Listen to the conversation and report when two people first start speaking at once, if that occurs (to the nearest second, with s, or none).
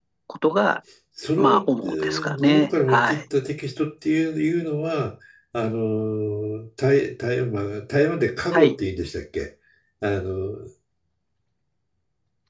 1 s